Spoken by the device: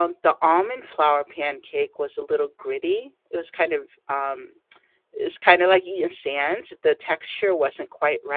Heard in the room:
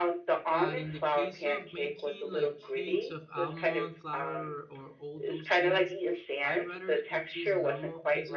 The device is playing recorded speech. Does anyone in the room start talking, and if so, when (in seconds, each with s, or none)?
0.5 s